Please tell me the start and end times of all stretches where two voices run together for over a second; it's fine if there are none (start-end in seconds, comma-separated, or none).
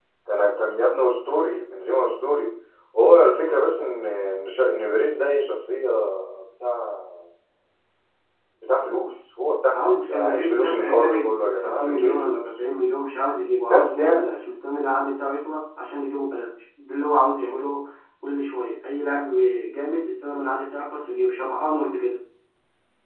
9.7-12.4